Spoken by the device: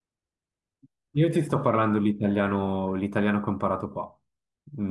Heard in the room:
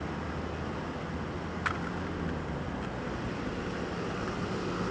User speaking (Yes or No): No